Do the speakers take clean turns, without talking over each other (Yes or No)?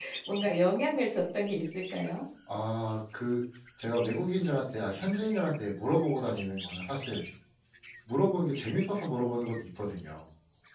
Yes